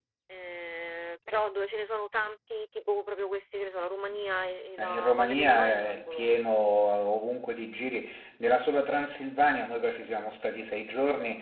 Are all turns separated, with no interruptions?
No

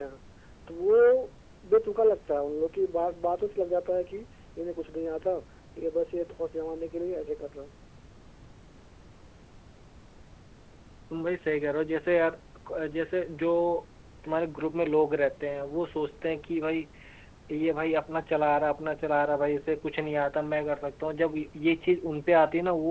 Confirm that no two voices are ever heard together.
Yes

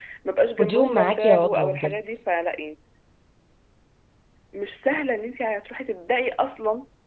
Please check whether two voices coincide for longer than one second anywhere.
Yes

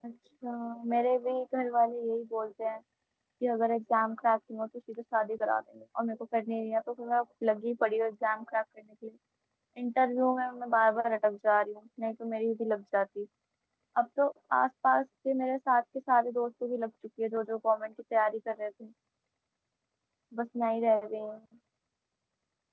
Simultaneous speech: No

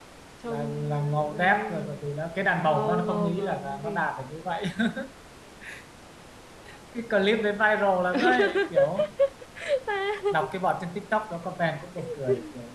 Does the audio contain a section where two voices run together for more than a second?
Yes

